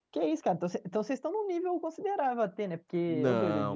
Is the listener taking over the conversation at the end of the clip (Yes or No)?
Yes